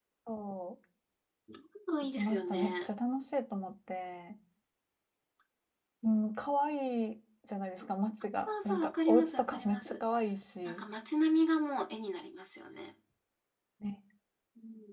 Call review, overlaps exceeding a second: present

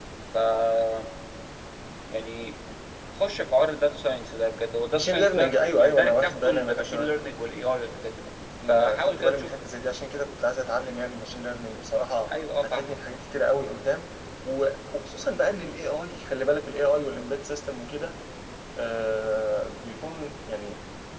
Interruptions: present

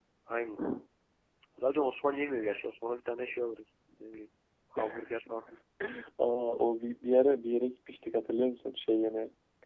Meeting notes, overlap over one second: none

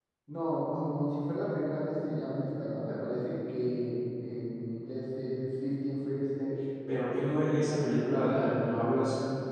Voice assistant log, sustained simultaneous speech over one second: none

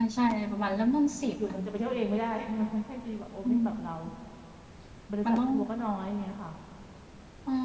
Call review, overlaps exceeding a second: none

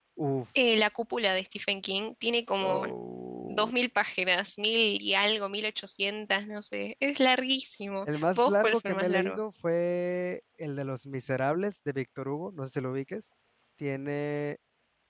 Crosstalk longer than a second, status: present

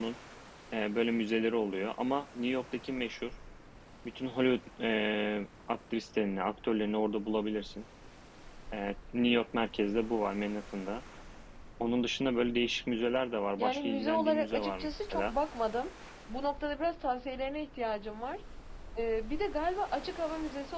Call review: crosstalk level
present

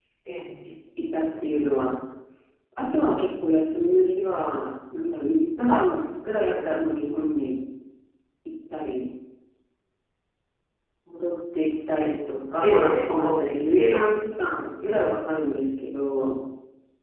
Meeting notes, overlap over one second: present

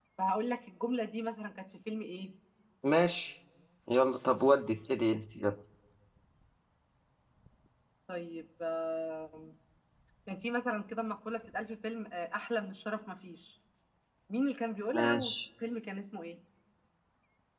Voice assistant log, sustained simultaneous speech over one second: none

